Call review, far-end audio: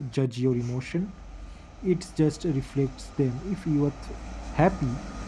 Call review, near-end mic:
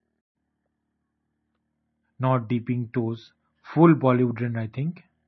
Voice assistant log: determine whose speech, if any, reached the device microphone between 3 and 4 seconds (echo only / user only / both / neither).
user only